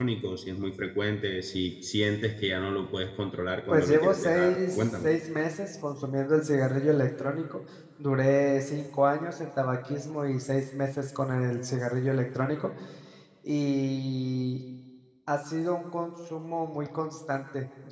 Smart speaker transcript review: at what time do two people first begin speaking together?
3.7 s

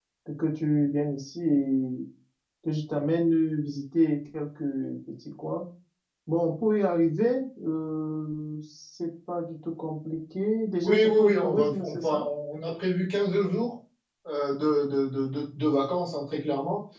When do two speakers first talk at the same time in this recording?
10.8 s

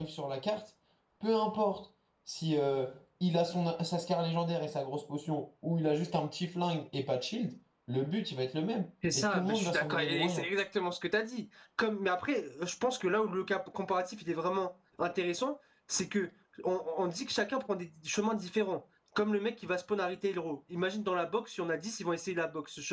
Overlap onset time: 9.0 s

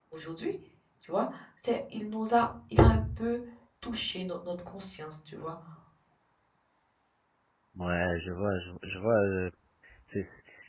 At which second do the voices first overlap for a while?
none

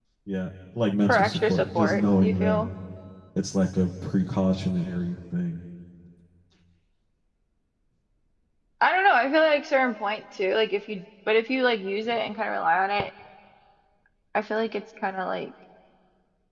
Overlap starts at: 1.1 s

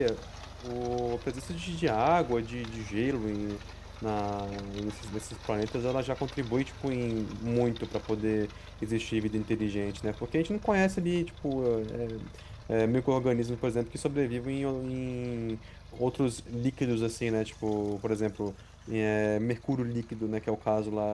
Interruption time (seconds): none

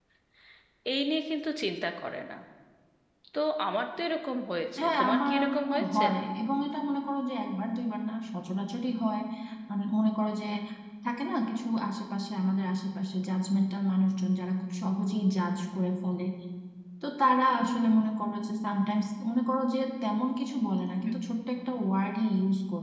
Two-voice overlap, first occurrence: 4.8 s

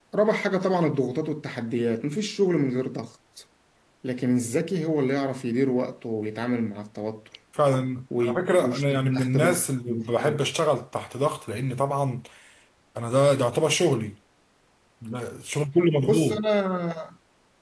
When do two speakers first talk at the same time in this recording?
8.2 s

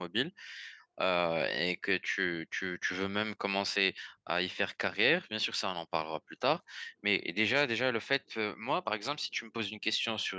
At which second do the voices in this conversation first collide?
none

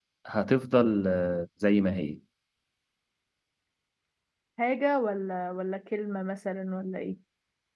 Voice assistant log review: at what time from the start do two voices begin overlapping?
none

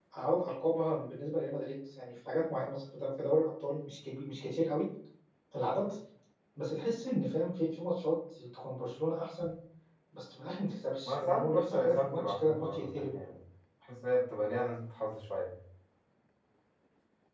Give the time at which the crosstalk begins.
11.1 s

